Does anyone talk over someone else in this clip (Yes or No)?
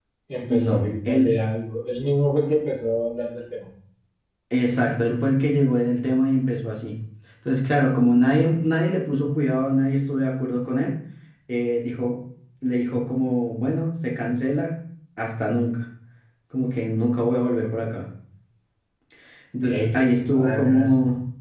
Yes